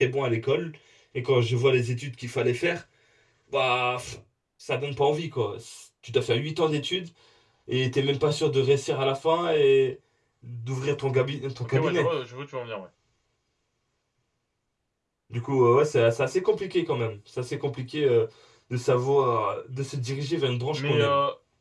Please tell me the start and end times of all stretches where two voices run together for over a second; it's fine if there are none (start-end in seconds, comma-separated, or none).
none